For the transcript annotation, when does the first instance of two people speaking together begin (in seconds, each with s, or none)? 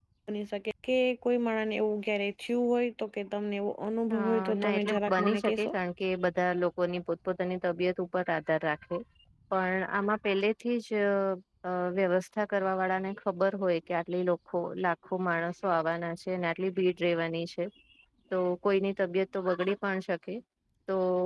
4.1 s